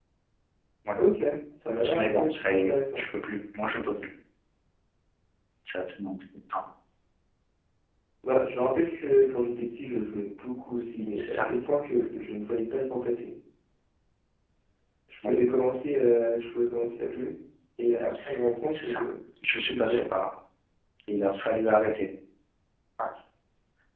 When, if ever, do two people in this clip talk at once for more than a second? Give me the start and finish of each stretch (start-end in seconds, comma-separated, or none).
1.8-3.1